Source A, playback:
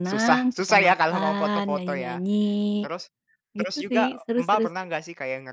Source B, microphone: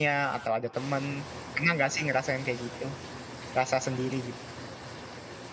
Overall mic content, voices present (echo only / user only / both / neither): user only